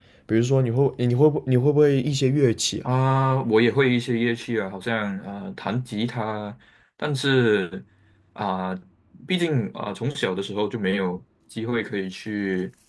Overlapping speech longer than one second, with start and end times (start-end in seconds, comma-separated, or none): none